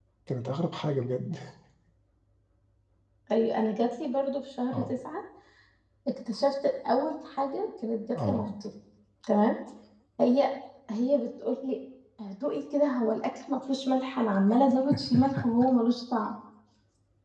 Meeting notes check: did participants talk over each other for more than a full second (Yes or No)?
No